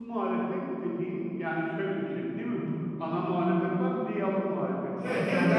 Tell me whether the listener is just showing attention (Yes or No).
No